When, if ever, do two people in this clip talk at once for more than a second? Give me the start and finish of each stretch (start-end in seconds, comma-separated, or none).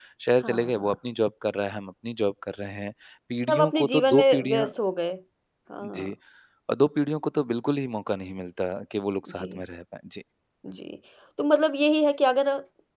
3.5-4.7